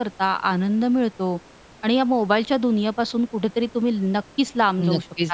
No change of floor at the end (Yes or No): No